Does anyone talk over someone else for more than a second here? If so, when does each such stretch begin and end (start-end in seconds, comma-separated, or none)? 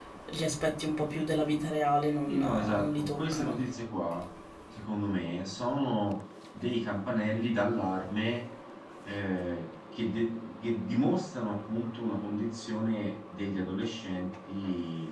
2.3-3.6